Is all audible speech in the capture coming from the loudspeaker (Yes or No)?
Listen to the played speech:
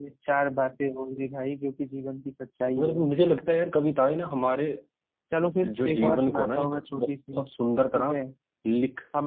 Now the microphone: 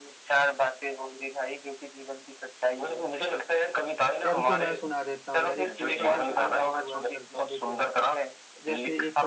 No